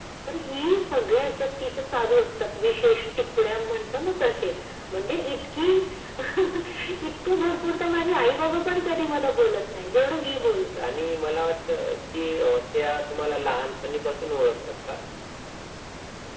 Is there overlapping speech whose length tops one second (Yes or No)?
No